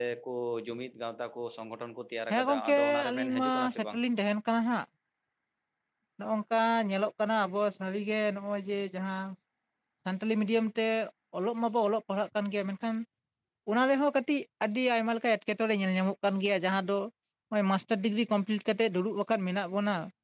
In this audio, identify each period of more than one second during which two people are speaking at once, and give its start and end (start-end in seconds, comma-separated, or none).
2.3-4.0